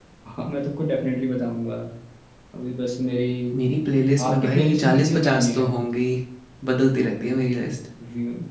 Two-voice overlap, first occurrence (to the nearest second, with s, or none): 4 s